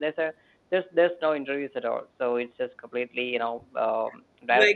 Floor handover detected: Yes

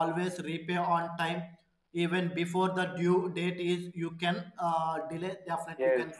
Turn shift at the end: Yes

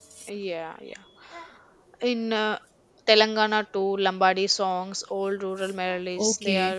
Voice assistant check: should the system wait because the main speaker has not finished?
No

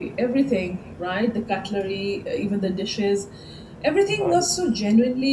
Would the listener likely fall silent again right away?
Yes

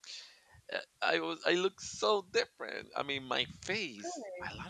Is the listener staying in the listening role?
Yes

